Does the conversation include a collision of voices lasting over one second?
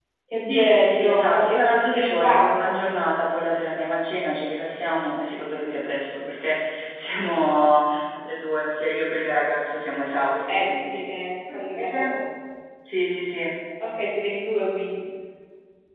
Yes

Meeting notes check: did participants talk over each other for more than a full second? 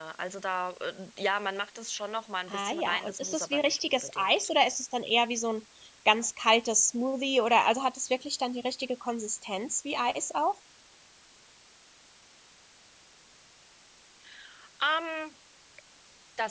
Yes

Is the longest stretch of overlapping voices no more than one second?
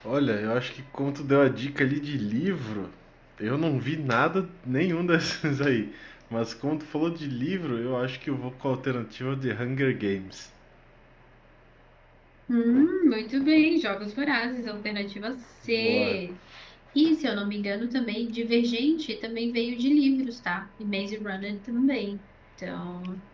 Yes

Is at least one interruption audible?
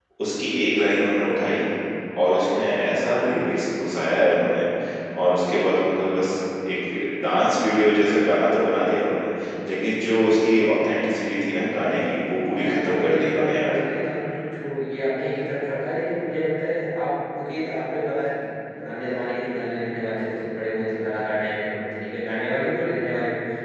Yes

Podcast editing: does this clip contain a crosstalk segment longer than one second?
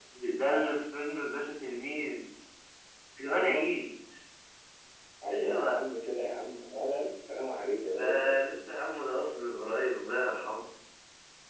No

